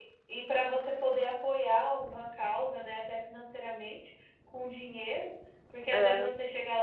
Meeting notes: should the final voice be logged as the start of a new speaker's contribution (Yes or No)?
No